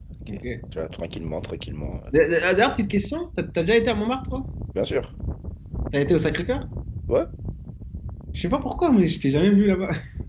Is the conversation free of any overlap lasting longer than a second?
Yes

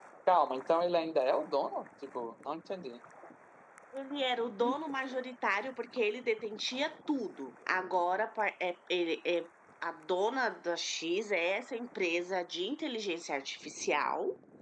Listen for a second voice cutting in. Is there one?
No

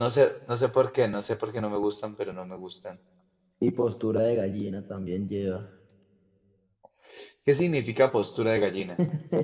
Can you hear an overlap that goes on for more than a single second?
No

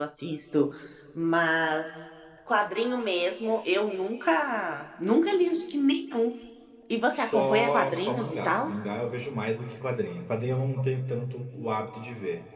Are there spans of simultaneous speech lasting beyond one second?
Yes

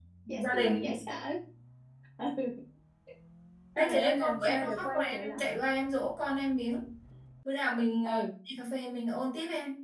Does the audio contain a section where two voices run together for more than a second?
Yes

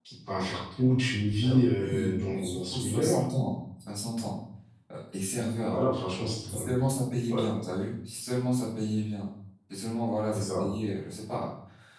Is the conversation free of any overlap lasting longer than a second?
No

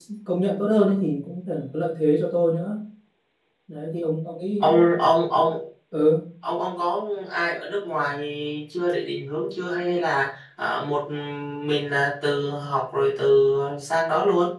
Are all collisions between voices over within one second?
Yes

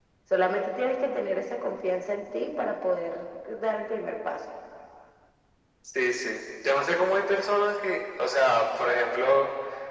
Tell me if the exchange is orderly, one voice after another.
Yes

